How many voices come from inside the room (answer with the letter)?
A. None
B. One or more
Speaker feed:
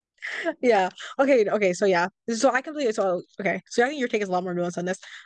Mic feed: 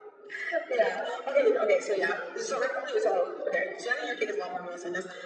A